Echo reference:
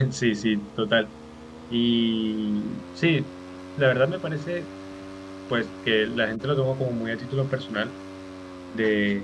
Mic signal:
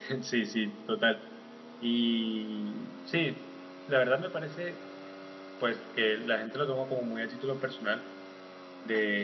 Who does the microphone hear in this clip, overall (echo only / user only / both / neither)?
echo only